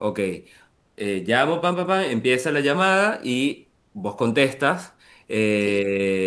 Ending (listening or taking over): listening